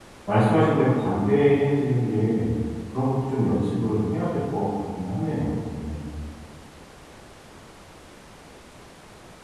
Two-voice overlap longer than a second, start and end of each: none

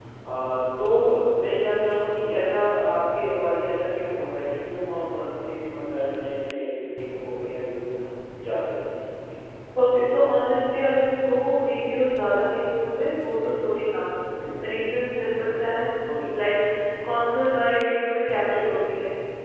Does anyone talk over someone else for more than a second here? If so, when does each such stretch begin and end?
none

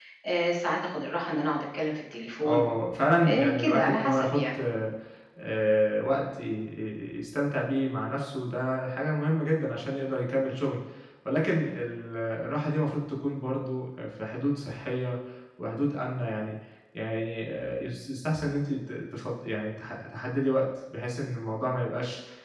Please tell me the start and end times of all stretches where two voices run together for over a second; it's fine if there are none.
3.2-4.6

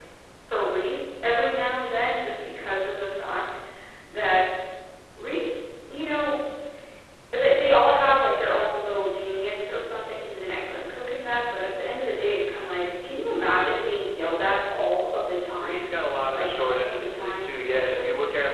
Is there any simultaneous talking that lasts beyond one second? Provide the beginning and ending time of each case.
16.3-18.0

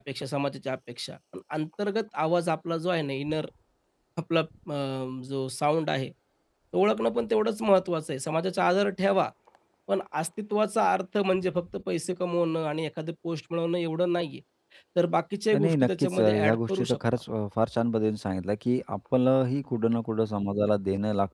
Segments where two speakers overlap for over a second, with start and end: 15.6-17.0

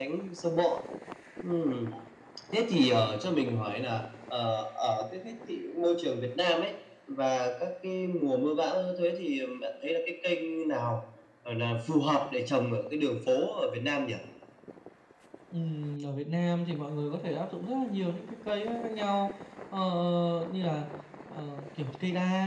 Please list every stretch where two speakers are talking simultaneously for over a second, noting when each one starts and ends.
none

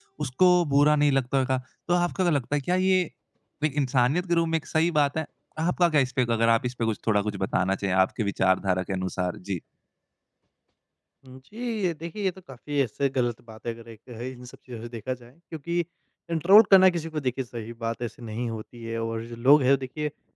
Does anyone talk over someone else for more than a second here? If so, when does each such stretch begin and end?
none

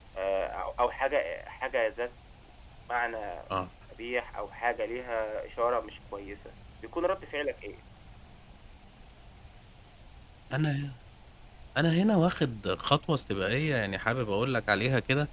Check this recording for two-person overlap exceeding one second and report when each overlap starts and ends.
none

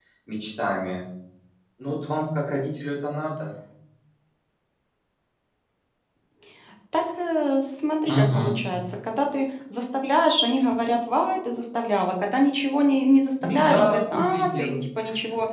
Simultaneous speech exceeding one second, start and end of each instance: 13.4-14.8

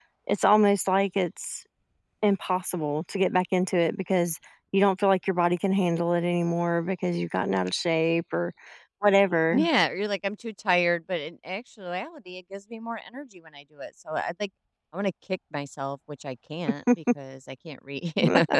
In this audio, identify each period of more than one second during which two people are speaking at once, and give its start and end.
none

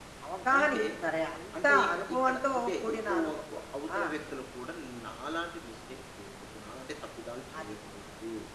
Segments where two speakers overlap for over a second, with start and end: 1.6-3.3

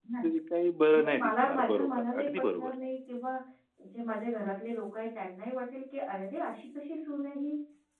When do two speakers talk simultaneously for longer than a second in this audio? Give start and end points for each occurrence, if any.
1.0-2.7

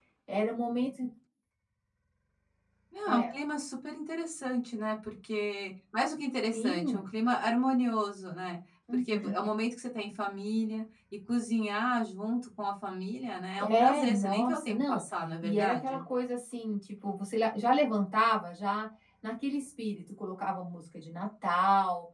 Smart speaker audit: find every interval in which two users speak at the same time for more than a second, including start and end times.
13.6-15.0

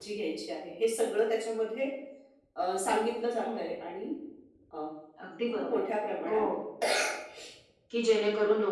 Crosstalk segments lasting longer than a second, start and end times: none

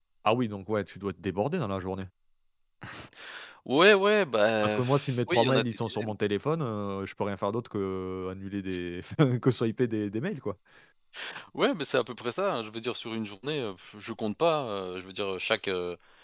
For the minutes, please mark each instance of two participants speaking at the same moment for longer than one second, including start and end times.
4.6-6.1

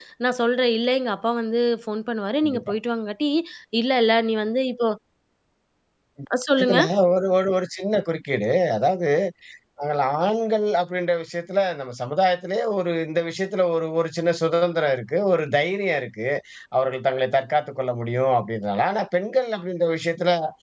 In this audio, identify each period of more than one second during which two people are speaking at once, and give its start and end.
none

